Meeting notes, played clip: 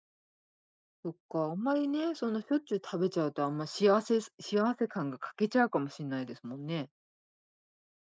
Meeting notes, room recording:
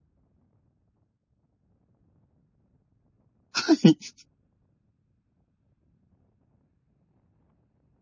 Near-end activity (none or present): present